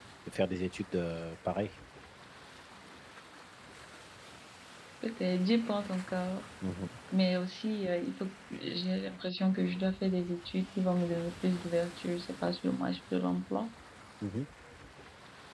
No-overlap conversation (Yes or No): Yes